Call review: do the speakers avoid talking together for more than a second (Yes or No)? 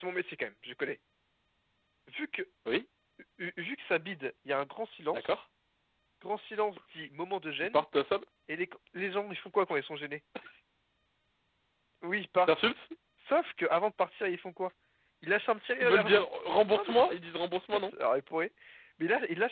Yes